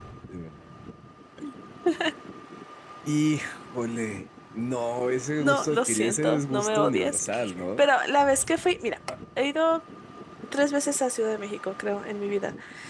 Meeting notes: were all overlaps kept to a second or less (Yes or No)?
No